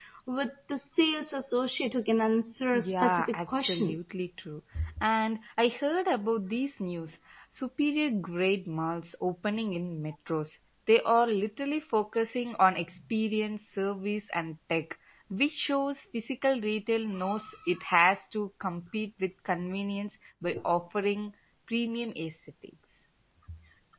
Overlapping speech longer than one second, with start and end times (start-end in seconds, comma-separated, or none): 2.7-4.0